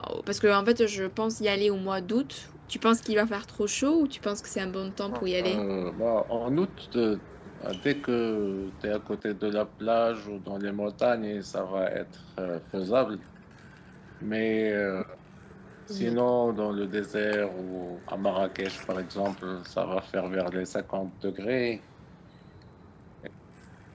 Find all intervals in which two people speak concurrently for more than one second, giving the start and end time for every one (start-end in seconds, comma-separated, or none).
none